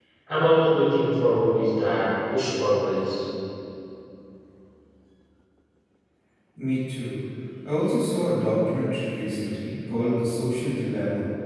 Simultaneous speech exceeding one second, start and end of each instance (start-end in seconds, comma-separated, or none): none